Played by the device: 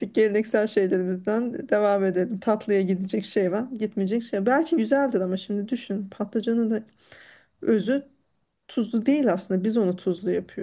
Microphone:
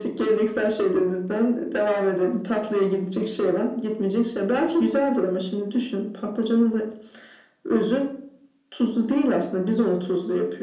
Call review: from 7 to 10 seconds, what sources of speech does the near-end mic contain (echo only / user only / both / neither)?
echo only